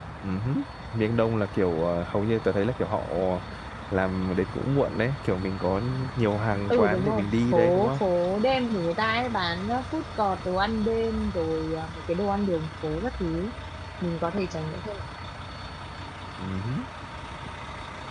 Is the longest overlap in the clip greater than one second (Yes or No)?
Yes